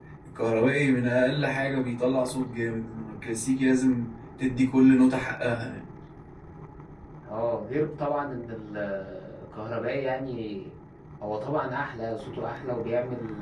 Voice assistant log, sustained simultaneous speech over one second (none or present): none